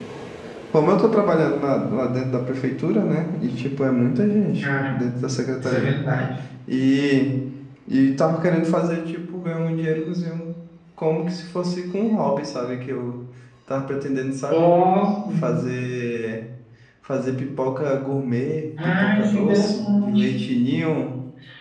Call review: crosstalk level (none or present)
present